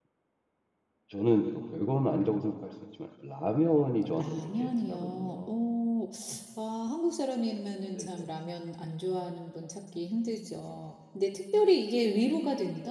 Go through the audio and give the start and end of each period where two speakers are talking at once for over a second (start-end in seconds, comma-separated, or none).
4.2-5.5